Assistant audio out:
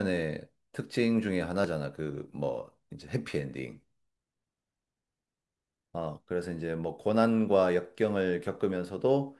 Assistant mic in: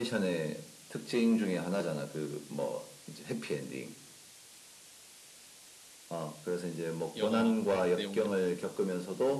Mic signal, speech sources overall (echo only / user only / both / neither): both